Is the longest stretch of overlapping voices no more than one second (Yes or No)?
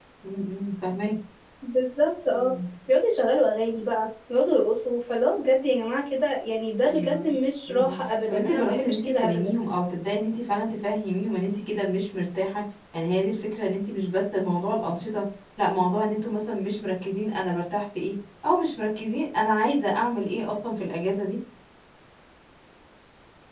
No